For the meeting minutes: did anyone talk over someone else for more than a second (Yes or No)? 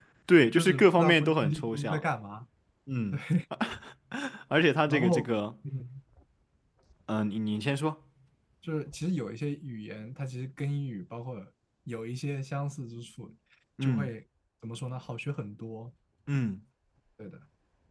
Yes